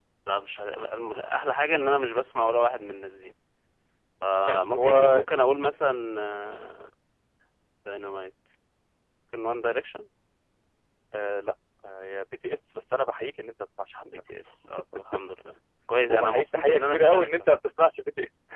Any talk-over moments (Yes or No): Yes